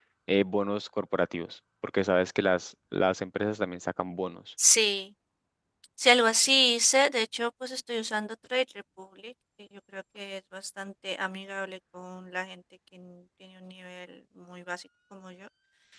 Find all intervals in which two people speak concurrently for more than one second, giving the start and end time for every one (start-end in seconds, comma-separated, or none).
none